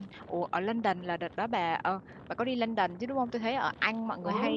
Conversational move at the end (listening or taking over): listening